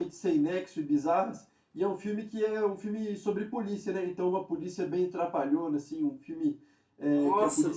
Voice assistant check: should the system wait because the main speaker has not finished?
Yes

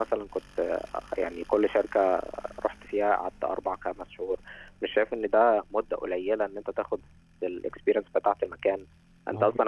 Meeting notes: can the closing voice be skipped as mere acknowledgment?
Yes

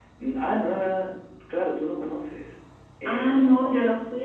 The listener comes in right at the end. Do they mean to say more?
Yes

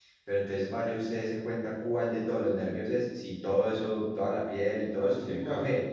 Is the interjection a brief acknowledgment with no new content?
Yes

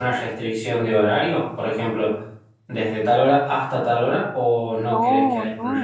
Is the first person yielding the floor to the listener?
Yes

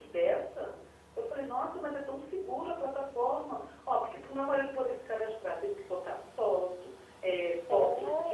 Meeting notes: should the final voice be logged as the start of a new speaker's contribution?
No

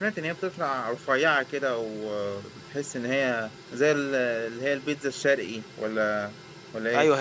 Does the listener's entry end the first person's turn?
Yes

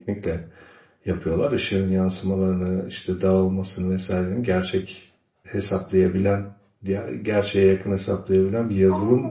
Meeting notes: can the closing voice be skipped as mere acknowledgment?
No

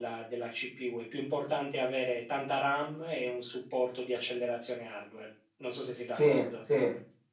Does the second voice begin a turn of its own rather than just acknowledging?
Yes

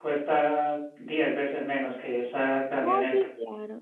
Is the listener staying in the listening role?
No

